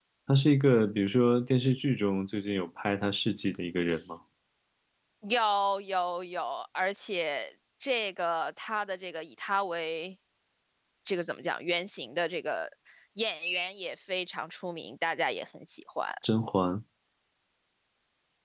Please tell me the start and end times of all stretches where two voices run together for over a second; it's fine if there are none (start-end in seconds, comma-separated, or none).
none